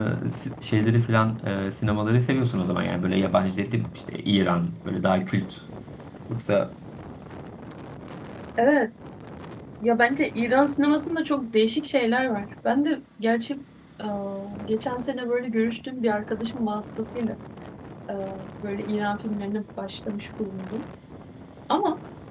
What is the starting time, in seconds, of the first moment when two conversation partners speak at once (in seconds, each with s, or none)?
none